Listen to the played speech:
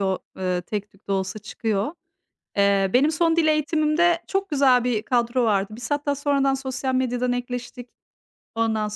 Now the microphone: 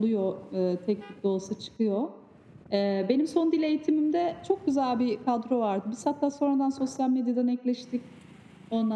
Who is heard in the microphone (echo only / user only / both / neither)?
echo only